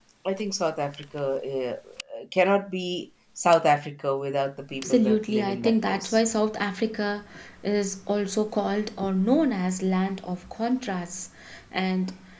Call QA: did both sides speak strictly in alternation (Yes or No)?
No